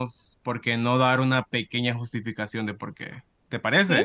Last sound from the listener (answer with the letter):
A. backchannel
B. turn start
B